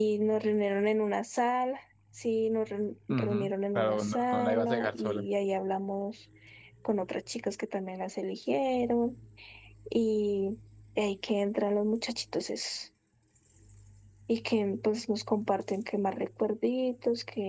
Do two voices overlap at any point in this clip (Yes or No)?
Yes